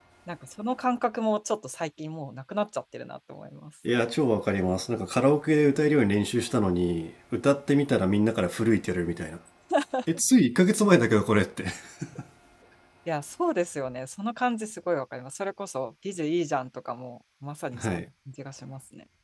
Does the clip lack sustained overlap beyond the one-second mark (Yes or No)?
Yes